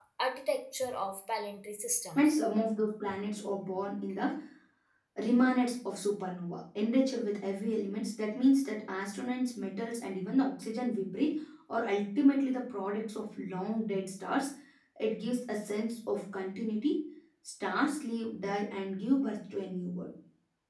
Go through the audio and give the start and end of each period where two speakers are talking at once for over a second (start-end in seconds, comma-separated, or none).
none